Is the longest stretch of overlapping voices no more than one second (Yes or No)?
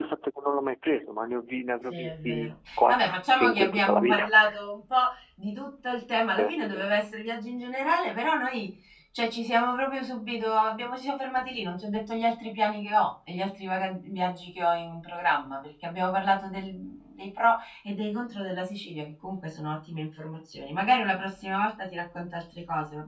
No